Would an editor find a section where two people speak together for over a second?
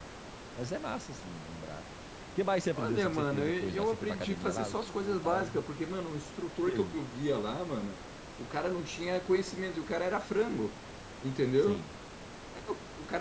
Yes, from 2.8 s

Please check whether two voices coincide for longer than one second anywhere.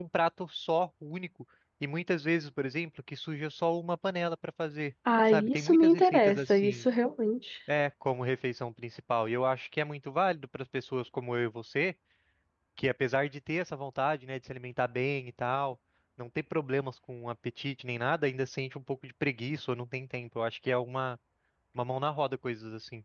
Yes, from 5.0 s

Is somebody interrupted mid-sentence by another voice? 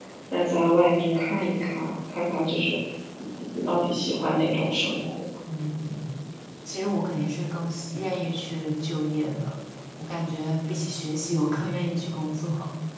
No

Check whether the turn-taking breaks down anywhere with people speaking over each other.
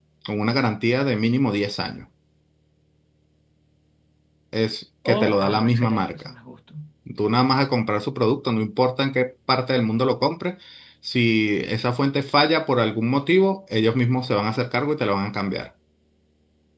Yes, from 5.0 s

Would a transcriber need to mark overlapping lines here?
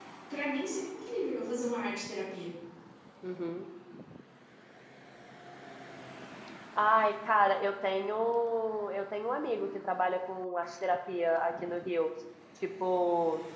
No

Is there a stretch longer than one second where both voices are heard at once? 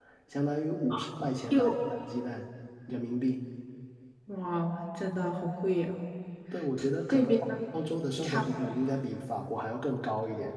No

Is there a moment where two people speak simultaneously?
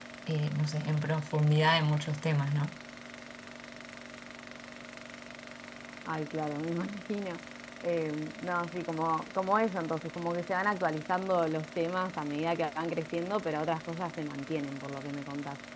No

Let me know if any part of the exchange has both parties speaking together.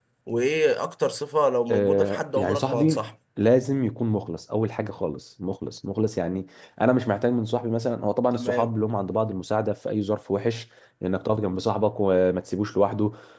Yes, from 1.7 s

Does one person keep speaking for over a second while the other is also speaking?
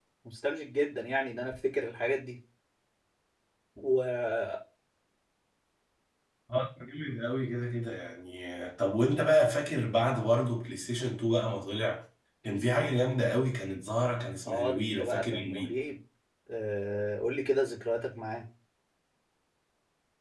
Yes, from 14.4 s

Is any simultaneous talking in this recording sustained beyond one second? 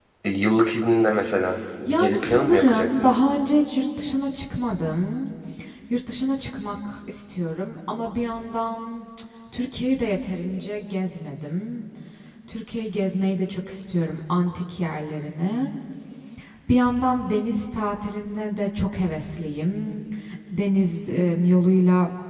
Yes, from 1.9 s

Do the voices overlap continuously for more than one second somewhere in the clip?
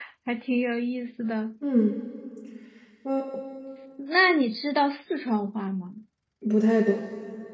No

